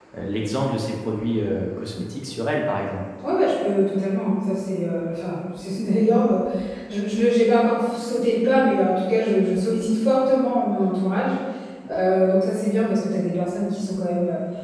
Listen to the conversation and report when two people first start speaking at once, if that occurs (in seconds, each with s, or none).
none